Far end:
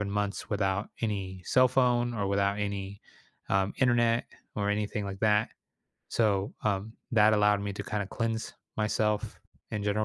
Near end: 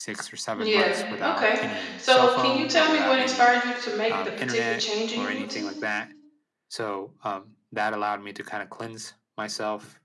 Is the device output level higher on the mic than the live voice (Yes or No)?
No